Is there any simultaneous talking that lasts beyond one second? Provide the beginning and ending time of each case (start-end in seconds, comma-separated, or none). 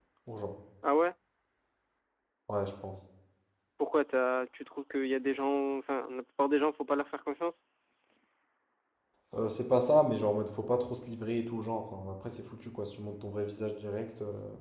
none